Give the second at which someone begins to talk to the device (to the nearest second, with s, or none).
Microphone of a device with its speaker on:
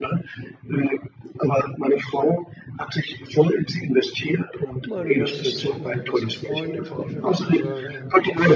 5 s